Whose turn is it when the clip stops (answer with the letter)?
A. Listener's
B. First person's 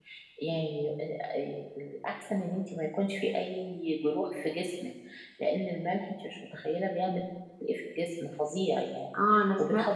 A